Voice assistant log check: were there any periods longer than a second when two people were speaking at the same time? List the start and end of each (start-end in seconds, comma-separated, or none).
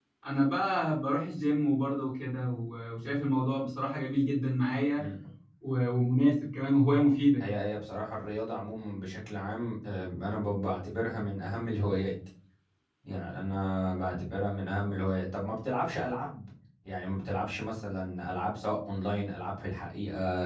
none